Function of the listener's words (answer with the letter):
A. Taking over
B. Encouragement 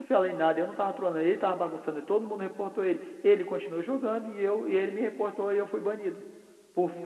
B